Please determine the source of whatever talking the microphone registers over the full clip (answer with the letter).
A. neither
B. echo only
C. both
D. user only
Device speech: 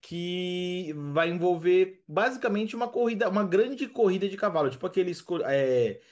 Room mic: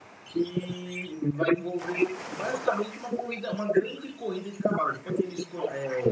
B